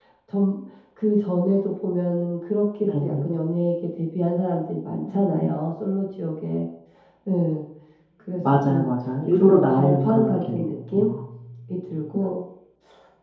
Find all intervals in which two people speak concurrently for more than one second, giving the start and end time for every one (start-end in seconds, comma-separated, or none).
9.3-11.0